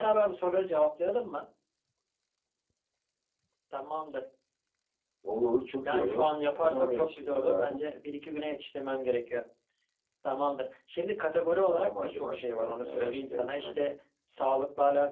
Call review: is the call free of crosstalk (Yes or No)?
No